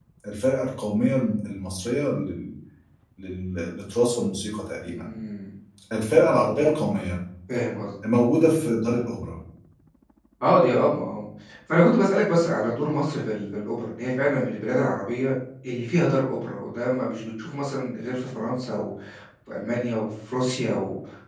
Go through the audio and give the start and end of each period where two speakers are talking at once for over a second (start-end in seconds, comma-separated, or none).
none